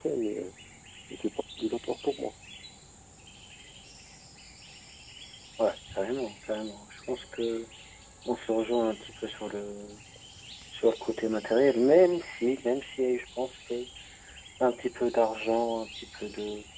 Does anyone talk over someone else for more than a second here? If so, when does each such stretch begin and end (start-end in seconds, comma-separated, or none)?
none